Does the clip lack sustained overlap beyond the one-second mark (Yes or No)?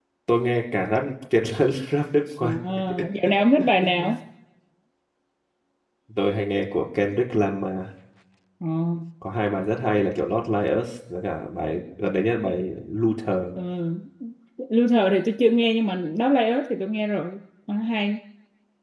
Yes